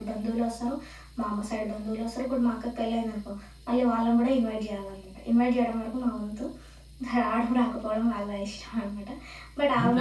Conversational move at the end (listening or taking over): listening